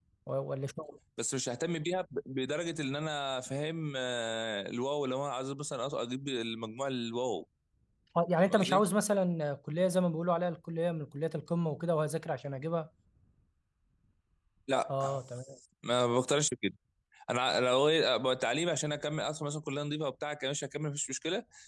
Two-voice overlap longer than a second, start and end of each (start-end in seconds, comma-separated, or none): none